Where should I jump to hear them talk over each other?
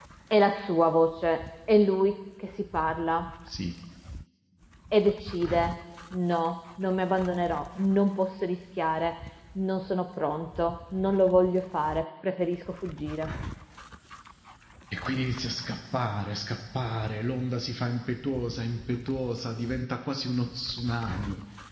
none

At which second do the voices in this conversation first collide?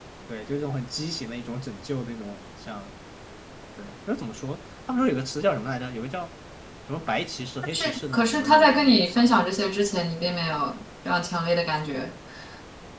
7.7 s

